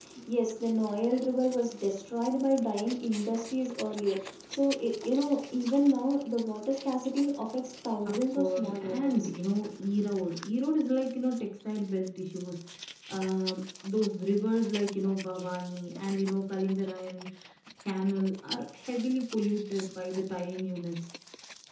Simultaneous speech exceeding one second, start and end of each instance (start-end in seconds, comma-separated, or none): 8.1-9.3